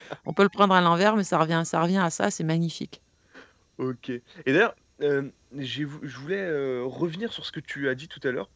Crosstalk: none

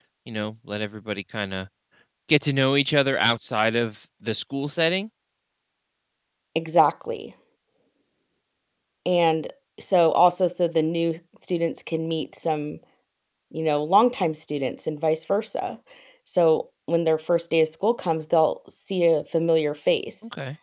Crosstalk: none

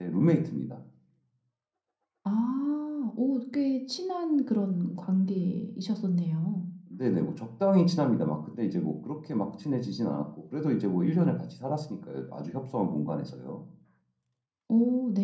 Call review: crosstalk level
none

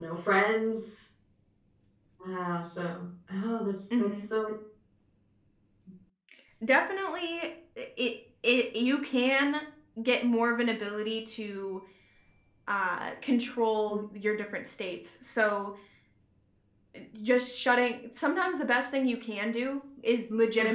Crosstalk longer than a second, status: none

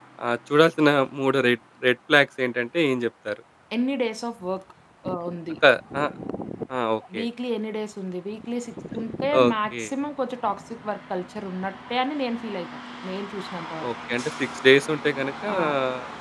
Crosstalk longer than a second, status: none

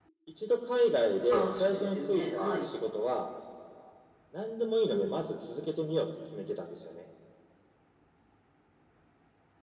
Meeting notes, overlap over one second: present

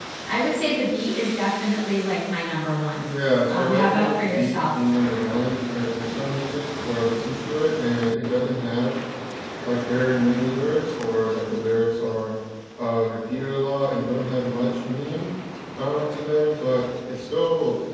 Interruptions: present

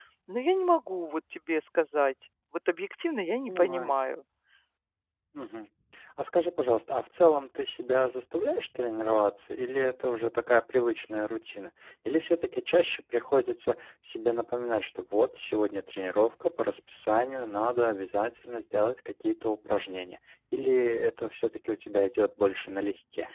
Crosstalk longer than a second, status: none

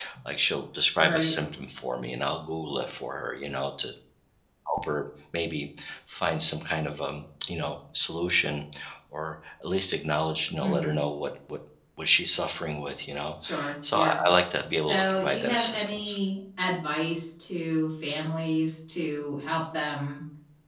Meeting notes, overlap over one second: present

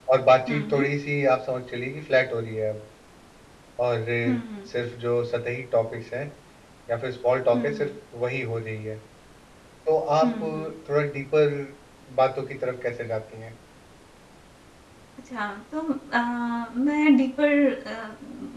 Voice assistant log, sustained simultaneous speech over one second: none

